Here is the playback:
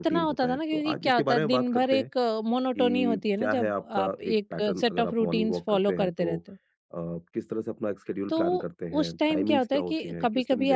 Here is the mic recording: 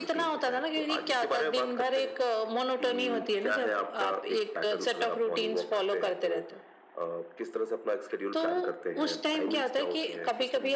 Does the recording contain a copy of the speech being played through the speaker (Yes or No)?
Yes